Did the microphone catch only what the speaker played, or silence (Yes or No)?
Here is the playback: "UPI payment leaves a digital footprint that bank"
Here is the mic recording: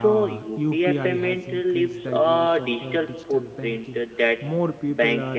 No